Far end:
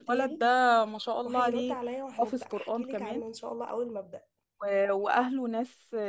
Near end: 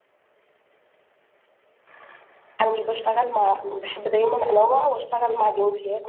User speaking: Yes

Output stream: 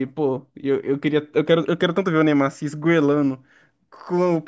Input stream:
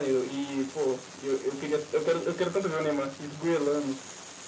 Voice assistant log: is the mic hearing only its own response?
Yes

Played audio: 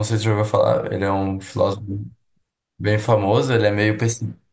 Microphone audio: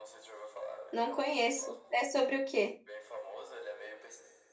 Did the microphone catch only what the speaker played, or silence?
No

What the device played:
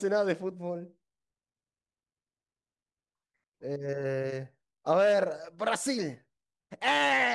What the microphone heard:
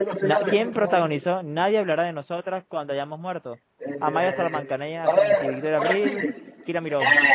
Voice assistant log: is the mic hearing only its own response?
No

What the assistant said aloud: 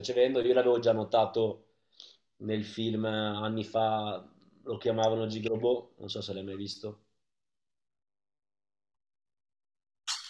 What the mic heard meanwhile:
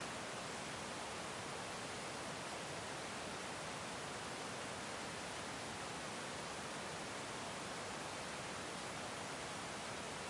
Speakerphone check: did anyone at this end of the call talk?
No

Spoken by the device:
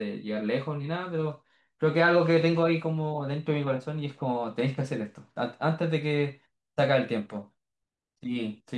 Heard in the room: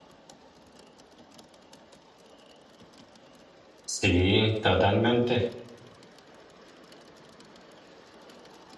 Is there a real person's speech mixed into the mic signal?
Yes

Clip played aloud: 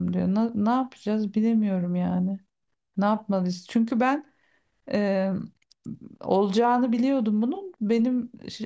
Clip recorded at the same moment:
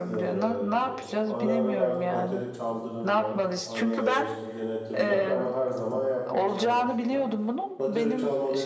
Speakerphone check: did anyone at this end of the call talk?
Yes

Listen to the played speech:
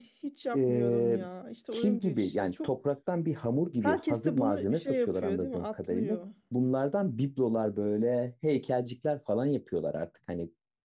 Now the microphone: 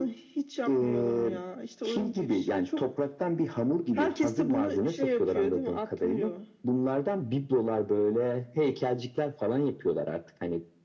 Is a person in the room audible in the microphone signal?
No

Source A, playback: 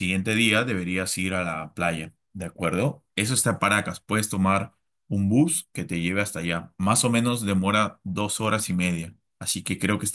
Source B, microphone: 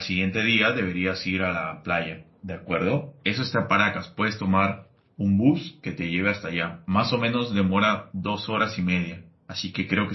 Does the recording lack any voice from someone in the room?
Yes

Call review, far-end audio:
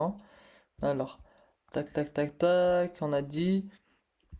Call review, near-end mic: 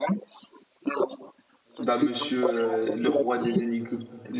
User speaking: Yes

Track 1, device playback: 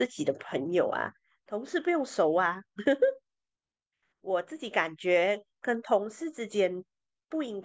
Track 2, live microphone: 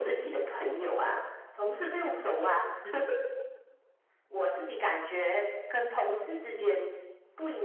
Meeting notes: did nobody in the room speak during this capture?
Yes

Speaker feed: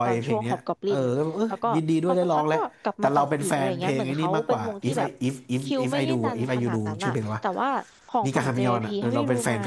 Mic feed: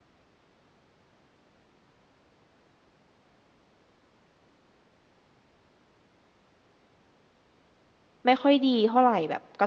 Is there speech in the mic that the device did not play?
Yes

